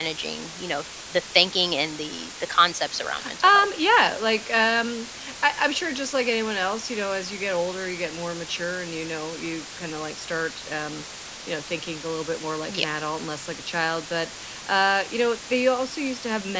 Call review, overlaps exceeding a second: none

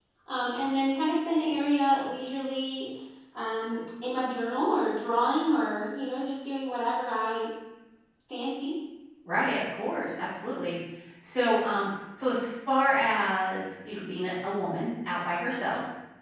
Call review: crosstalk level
none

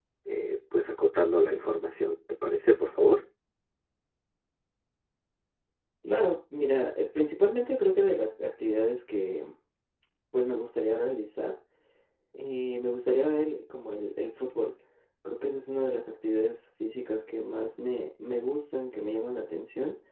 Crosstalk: none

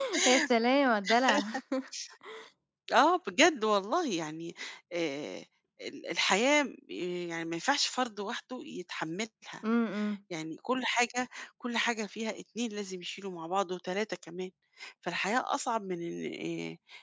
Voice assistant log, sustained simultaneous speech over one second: none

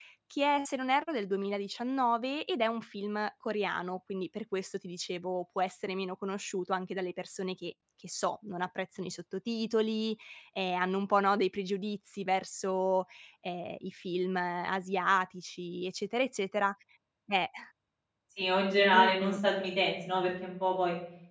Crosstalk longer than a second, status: none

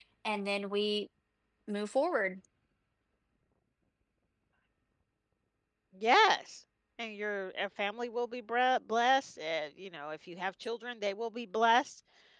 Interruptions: none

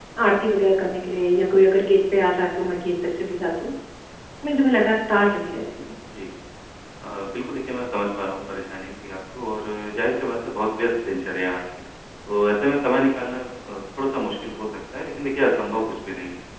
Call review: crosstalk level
none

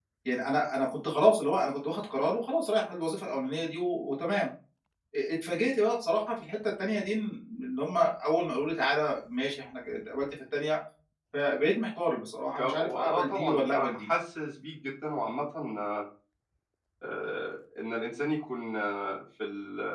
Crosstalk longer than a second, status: present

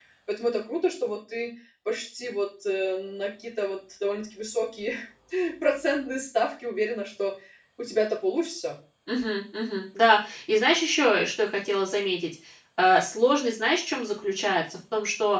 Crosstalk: none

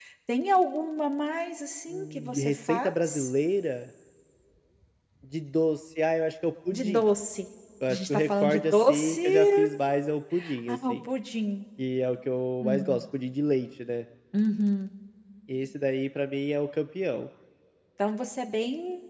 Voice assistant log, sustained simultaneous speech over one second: present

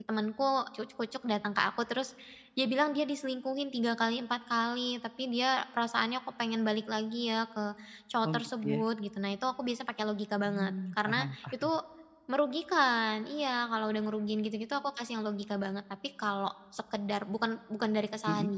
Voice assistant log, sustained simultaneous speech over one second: present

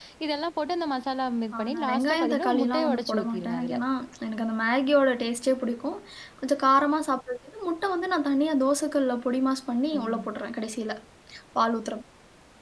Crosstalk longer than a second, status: present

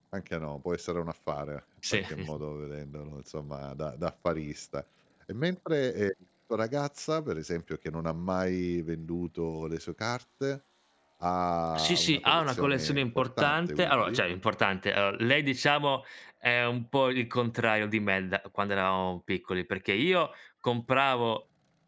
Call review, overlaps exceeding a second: present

